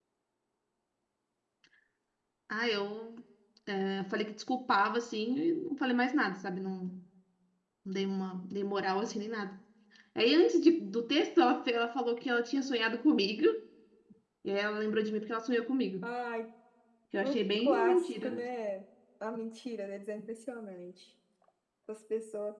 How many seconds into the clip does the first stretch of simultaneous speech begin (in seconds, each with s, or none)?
17.2 s